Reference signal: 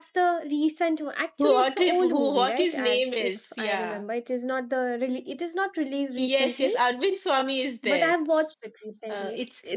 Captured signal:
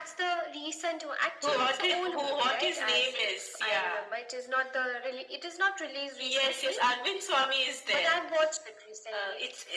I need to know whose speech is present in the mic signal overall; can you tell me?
echo only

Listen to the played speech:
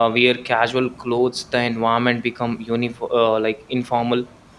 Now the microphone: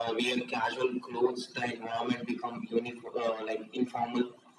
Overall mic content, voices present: echo only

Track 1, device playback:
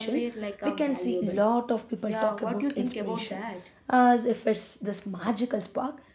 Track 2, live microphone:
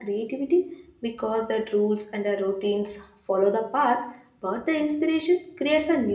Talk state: user only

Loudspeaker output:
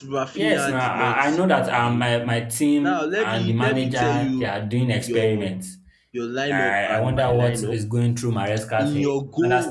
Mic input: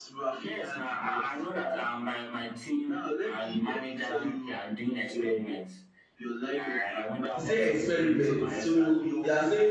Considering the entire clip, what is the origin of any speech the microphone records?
both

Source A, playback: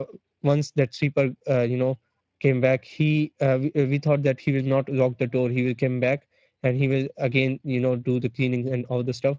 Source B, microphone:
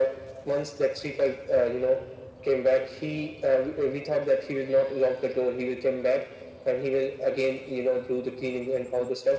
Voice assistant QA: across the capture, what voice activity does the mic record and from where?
echo only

